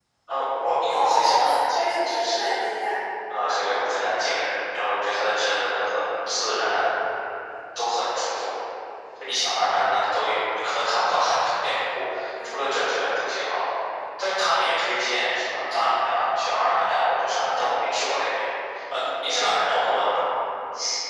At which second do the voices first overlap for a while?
0.9 s

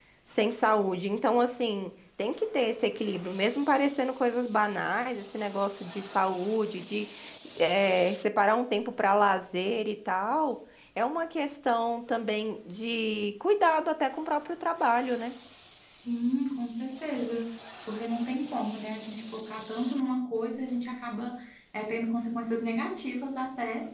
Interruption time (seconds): none

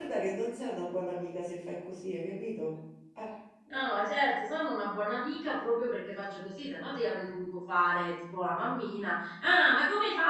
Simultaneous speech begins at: none

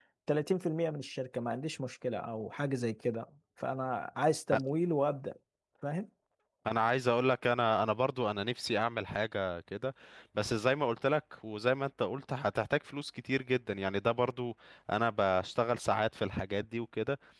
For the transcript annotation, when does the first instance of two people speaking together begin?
none

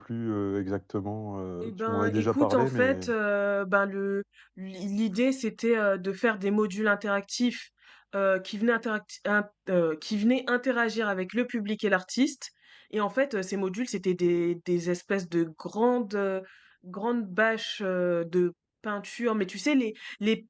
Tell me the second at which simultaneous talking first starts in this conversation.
1.6 s

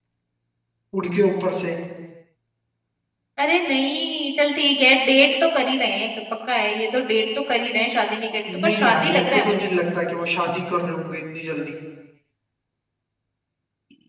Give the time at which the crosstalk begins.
8.5 s

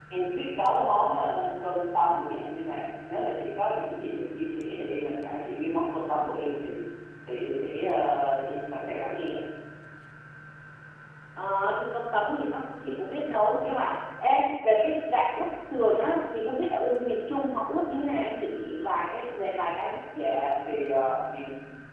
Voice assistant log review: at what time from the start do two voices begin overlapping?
none

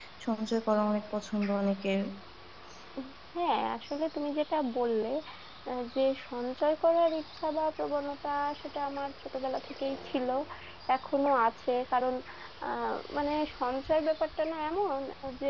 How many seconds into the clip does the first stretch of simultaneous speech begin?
none

